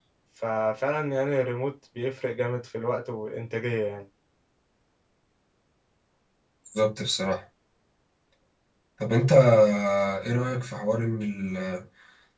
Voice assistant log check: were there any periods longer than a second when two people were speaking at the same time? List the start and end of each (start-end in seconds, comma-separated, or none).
none